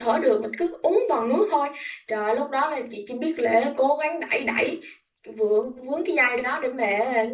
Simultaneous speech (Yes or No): No